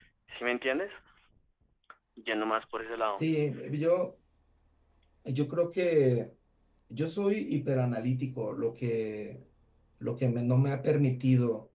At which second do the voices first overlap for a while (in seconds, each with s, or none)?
none